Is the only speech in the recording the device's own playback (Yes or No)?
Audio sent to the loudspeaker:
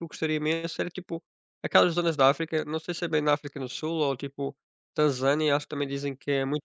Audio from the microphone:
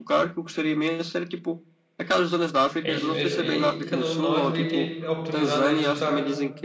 No